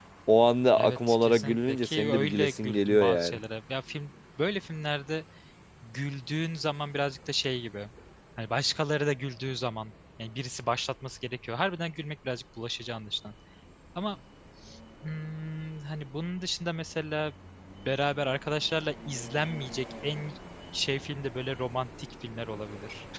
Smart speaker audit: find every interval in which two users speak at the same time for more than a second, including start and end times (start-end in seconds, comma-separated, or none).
0.8-3.4